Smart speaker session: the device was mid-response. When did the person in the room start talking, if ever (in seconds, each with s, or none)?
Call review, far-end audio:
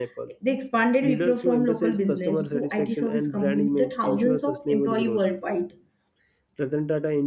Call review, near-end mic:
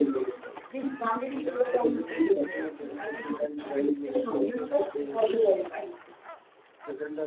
none